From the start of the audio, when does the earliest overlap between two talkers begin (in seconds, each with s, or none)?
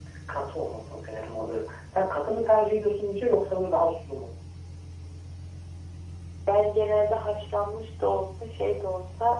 none